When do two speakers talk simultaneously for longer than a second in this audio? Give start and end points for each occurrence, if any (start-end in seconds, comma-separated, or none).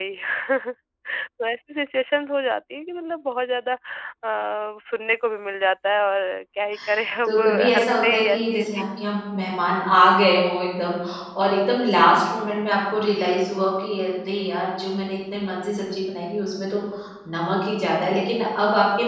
7.3-8.8